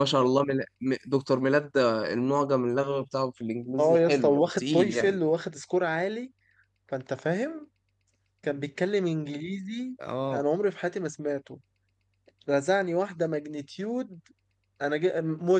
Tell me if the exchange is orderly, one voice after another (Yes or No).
No